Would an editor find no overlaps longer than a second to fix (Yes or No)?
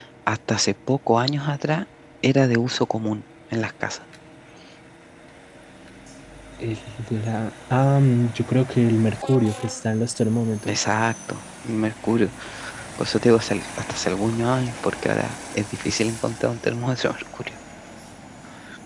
Yes